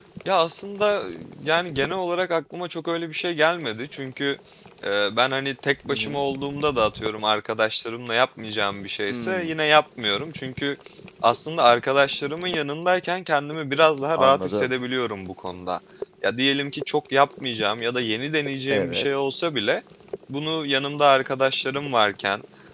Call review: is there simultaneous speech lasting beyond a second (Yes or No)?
No